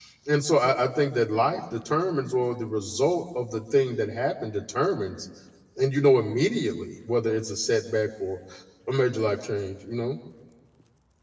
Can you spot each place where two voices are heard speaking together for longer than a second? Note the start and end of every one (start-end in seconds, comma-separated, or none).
none